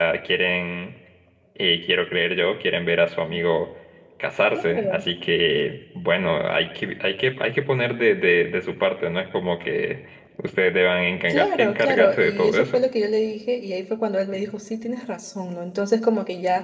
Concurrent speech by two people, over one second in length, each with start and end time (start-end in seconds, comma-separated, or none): 11.3-12.8